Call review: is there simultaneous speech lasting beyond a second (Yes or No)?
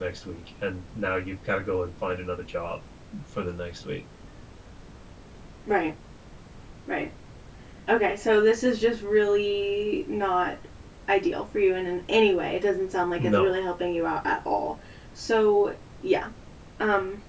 No